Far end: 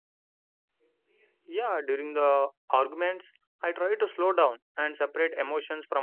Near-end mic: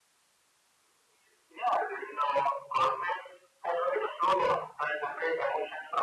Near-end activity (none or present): none